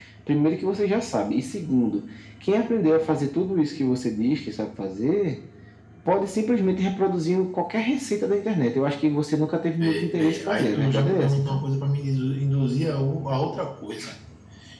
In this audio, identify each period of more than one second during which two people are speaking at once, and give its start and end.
9.8-11.6

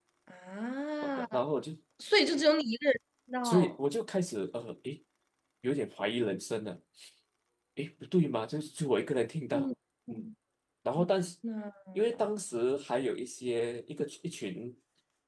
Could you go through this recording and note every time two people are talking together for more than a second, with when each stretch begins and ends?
none

